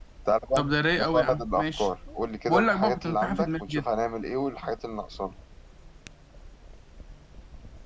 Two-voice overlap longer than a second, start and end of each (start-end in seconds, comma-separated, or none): 0.6-1.9, 2.5-3.8